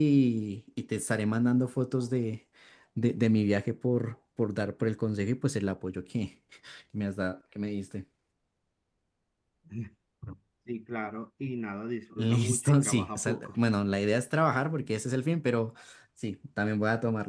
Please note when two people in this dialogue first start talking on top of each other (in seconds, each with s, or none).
12.2 s